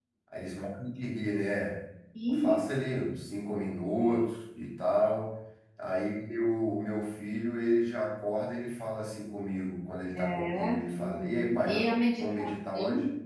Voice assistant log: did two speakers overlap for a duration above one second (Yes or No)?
Yes